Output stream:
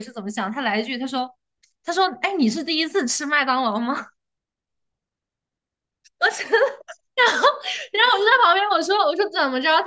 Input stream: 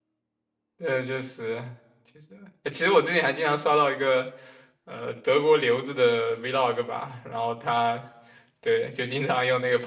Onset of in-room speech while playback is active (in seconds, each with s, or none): 0.8 s